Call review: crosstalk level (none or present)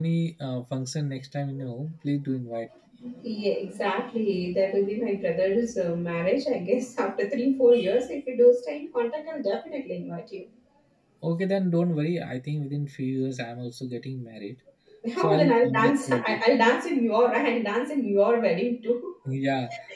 present